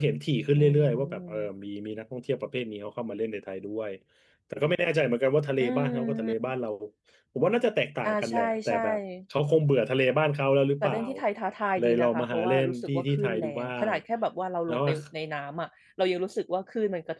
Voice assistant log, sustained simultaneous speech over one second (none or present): present